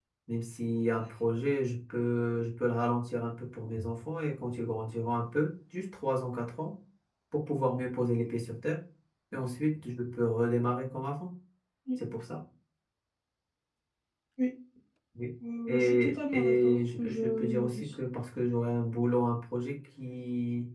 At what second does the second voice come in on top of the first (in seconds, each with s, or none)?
15.7 s